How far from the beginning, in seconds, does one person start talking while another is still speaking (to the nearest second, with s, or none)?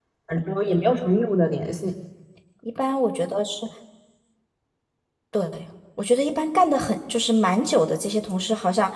none